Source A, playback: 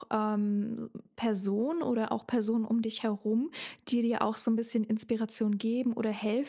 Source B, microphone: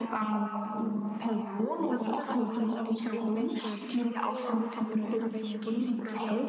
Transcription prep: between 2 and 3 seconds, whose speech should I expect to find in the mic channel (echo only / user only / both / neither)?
both